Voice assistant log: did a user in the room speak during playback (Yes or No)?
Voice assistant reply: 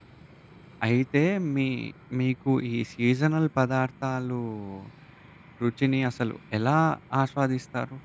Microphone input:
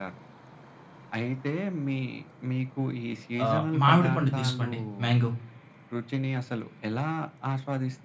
Yes